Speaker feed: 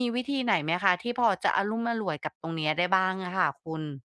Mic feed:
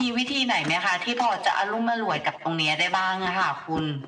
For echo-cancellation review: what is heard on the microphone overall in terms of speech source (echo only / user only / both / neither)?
echo only